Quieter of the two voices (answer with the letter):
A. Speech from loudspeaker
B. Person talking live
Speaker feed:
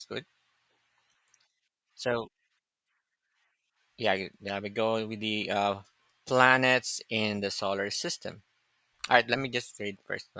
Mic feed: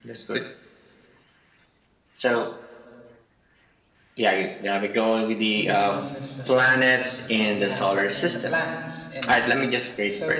B